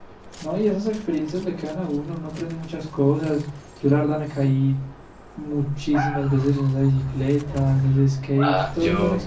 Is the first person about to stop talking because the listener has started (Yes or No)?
Yes